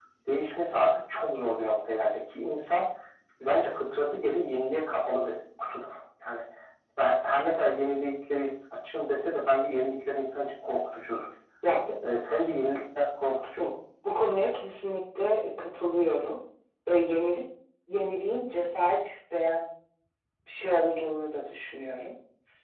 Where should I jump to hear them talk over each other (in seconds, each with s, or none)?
none